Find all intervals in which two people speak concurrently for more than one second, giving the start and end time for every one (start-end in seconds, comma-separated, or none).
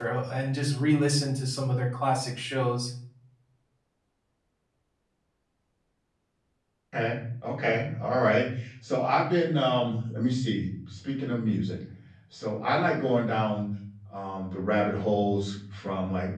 none